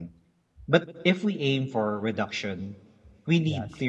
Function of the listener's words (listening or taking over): listening